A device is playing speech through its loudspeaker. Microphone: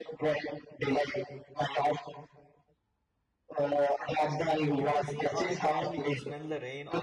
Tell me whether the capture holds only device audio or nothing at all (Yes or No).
No